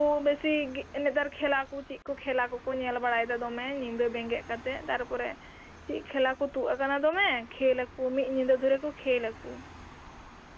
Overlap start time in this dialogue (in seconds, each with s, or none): none